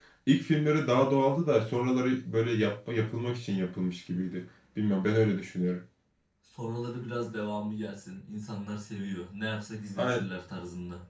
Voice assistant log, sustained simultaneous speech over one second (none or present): none